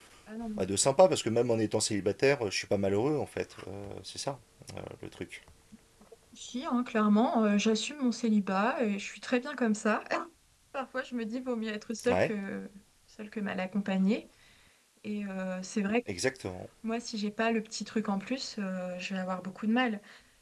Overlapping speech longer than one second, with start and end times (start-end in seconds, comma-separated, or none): none